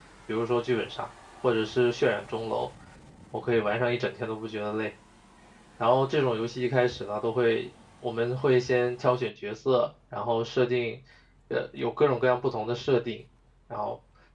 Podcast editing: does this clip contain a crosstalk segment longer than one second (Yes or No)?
No